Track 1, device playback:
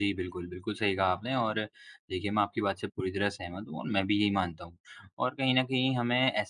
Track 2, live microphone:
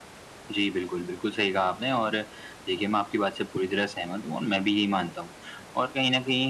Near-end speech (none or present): none